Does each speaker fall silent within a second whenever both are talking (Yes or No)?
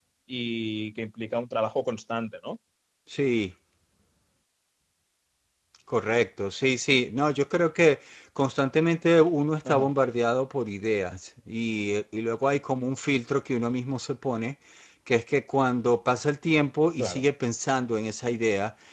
Yes